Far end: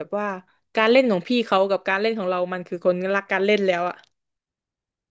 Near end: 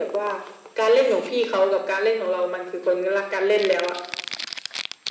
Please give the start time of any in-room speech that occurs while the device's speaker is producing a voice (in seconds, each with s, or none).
none